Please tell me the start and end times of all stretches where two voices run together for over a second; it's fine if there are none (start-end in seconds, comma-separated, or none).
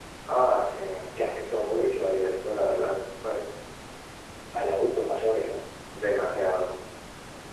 1.6-2.9